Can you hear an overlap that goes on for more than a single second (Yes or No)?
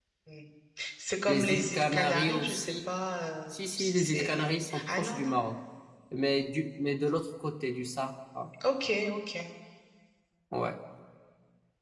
Yes